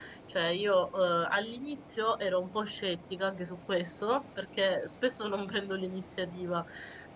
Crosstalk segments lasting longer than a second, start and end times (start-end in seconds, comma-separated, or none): none